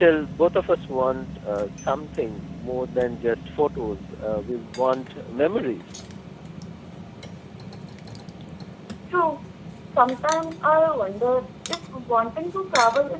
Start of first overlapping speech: none

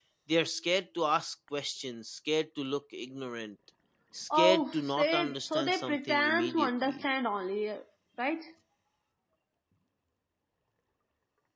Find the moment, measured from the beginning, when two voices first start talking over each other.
4.3 s

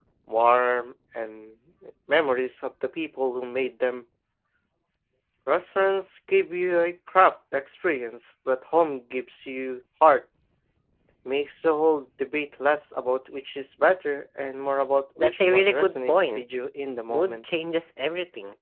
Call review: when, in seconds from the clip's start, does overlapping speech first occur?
15.2 s

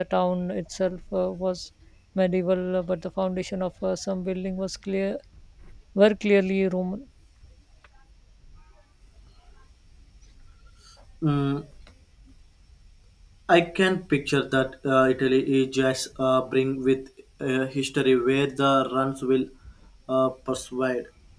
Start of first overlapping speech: none

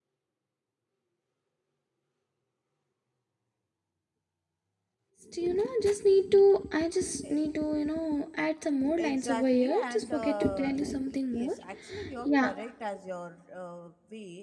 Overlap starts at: 9.0 s

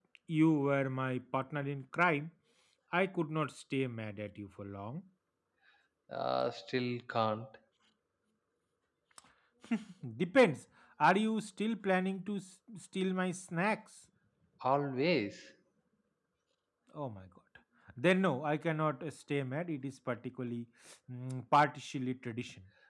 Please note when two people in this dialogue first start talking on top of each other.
none

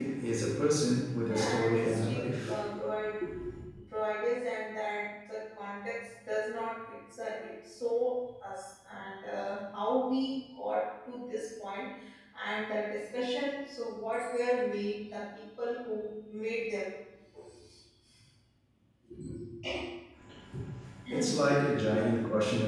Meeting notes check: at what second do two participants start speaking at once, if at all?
1.3 s

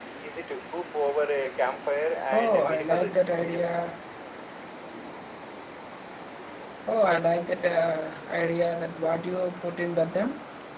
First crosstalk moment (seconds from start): 2.3 s

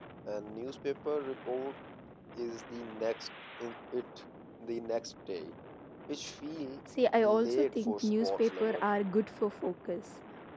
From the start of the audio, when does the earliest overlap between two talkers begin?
7.2 s

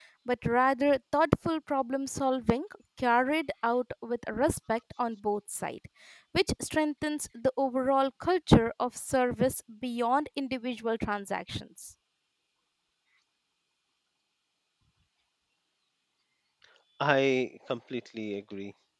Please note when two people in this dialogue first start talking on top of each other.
none

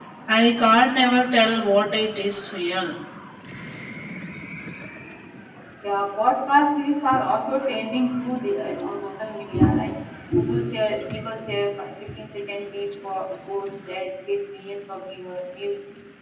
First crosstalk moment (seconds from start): none

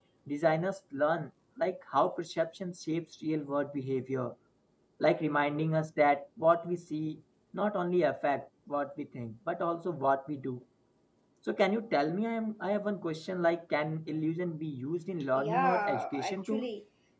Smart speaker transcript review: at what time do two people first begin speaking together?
15.3 s

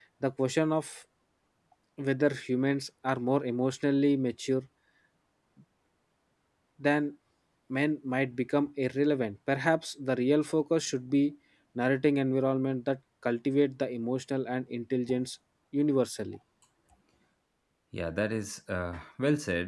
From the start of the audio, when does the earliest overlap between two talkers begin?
none

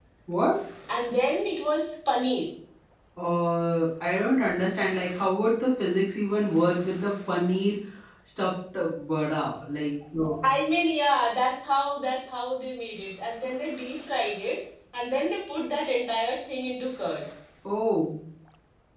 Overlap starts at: none

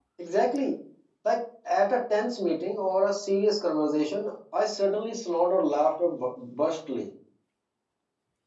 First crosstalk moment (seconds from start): none

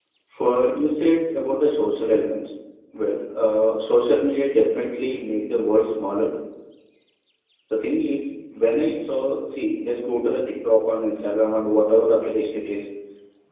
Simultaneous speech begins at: none

